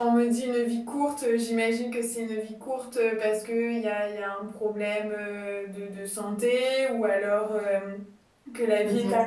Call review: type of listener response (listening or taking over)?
listening